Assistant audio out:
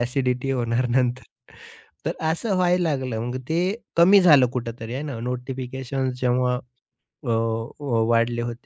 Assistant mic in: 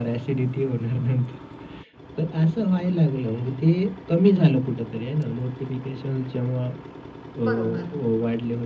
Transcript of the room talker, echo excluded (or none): बरोबर.